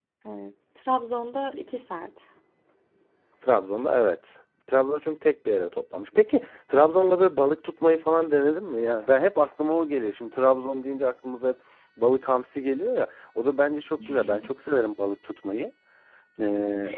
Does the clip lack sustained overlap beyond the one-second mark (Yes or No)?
Yes